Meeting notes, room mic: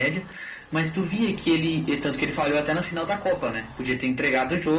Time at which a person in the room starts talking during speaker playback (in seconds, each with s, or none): none